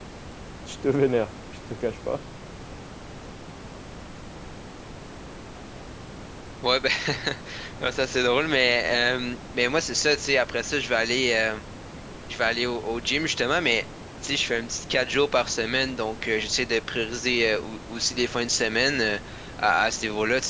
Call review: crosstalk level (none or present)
none